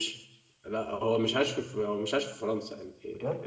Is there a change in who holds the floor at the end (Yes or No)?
No